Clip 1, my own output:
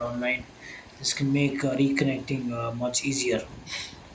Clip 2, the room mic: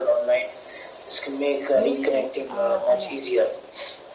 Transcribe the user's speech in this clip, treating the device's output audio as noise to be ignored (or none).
loneliness uh, i